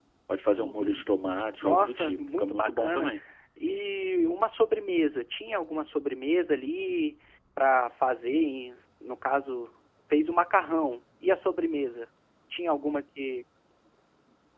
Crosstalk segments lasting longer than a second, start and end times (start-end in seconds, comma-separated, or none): 1.6-3.1